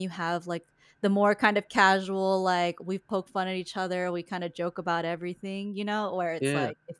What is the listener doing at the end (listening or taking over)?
listening